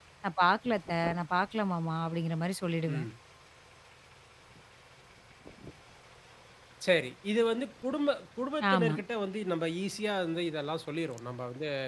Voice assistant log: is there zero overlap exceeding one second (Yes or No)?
Yes